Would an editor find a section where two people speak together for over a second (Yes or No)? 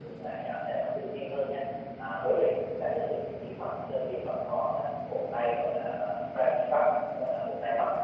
No